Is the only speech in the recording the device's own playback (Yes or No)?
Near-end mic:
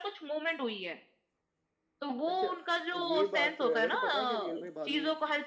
Yes